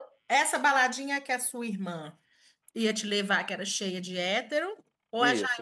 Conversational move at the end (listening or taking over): taking over